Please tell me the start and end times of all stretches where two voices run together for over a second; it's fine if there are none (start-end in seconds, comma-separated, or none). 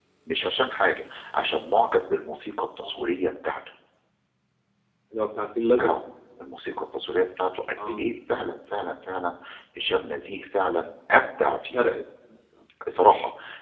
none